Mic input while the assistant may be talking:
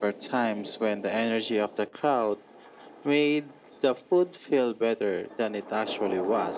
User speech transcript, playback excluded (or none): none